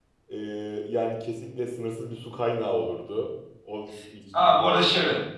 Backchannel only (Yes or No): No